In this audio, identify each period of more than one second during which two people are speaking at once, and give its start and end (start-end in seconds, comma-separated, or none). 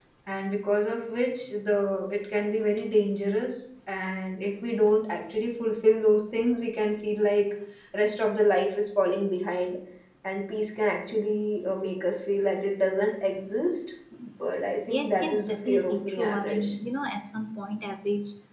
14.9-16.7